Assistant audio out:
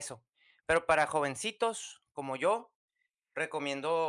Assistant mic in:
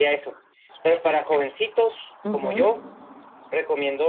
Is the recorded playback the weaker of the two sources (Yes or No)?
Yes